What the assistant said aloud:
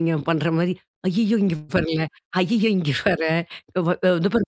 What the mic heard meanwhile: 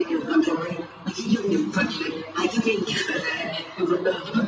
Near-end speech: none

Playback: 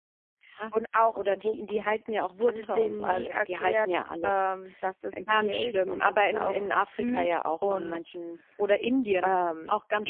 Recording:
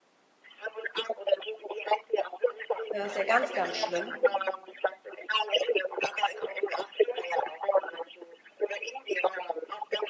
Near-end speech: present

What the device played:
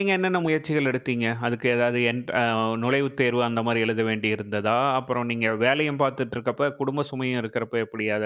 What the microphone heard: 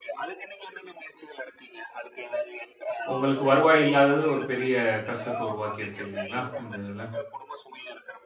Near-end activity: present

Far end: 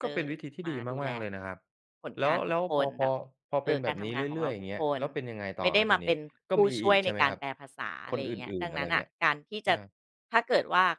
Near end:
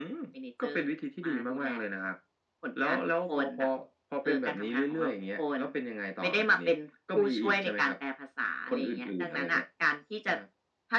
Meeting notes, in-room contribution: none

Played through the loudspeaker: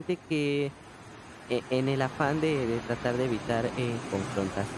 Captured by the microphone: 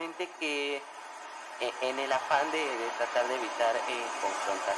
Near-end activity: none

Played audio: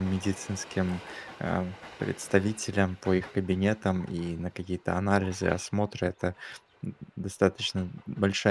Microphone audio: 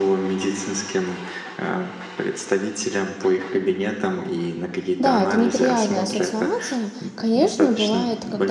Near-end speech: present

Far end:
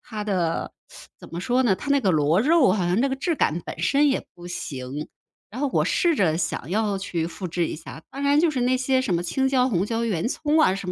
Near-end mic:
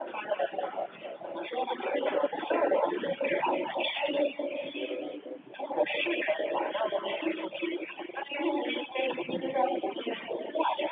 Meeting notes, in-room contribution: none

